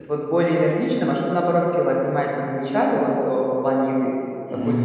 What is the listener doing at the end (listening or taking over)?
taking over